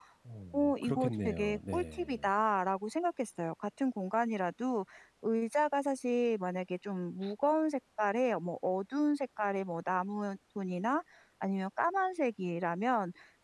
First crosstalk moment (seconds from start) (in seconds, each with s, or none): 0.5 s